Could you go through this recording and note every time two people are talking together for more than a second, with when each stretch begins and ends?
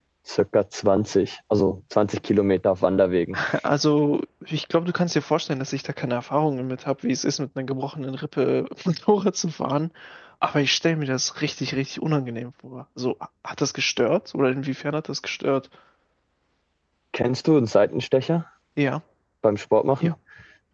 none

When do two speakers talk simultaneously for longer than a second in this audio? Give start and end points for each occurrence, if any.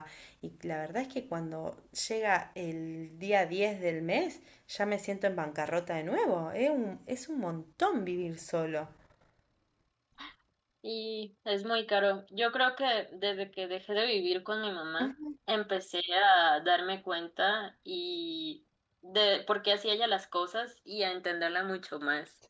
none

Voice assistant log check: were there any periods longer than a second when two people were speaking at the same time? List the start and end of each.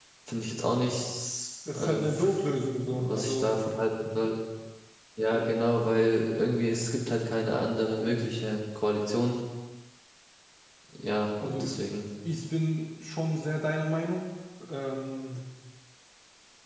1.8-3.6

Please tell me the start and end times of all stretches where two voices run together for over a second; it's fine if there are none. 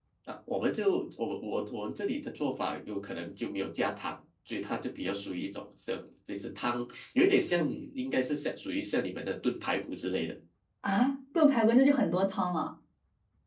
none

